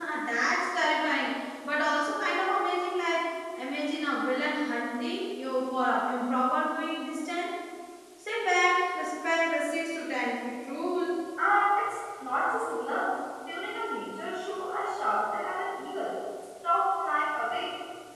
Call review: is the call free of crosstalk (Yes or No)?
Yes